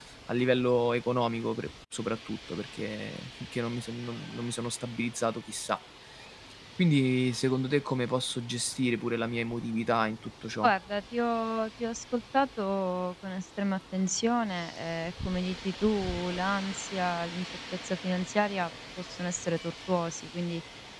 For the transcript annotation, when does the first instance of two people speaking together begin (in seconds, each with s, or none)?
none